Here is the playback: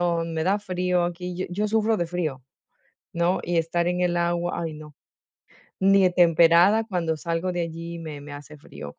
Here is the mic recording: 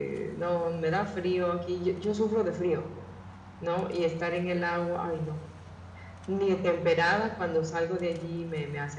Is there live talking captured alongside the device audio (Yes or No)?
No